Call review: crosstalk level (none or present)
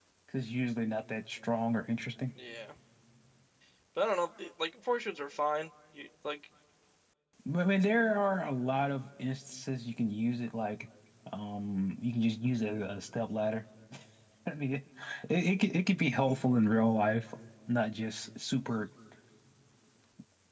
none